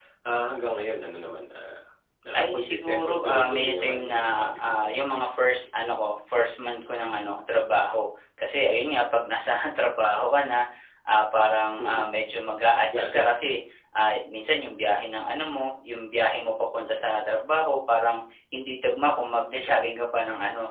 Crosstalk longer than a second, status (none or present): present